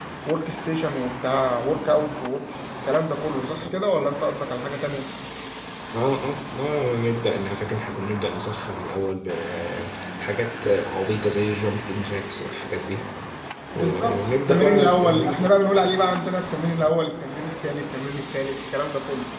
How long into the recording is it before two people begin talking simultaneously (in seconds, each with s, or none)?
13.8 s